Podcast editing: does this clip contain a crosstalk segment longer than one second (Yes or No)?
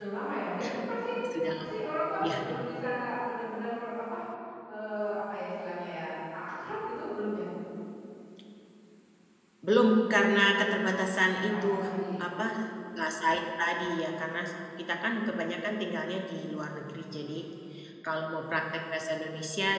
No